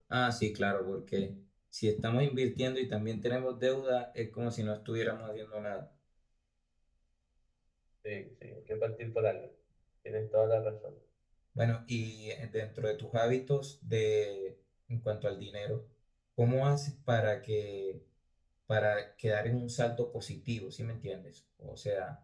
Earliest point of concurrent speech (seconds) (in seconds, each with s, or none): none